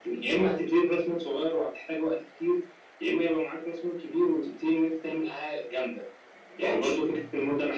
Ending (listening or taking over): listening